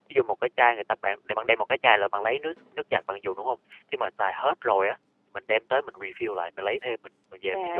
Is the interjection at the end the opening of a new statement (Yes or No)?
Yes